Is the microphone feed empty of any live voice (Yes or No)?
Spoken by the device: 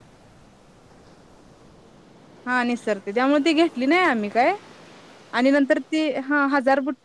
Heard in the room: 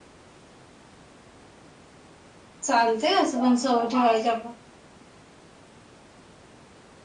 No